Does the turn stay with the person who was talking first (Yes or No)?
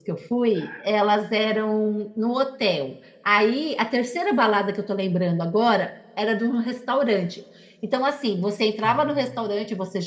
Yes